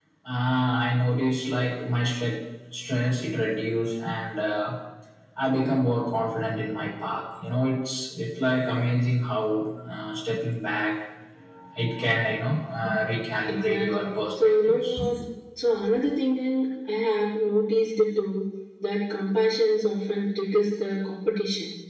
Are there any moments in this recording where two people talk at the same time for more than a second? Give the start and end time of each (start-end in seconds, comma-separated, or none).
13.5-15.0